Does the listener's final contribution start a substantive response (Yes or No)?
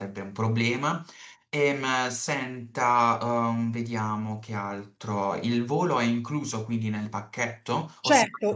Yes